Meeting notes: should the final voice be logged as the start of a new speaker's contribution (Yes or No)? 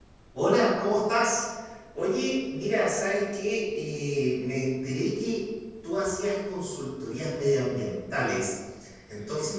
No